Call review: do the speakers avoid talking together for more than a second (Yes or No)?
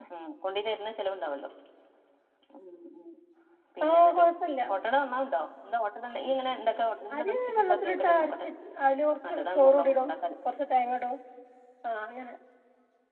No